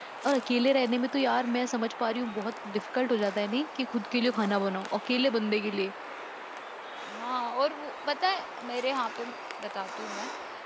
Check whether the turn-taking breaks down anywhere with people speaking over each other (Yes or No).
No